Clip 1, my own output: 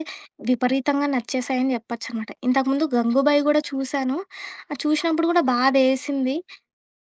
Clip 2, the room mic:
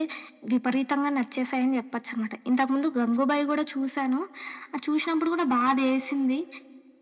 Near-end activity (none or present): none